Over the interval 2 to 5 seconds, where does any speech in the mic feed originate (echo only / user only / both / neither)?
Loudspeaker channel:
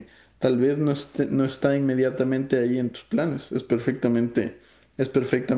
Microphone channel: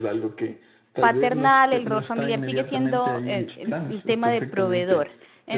both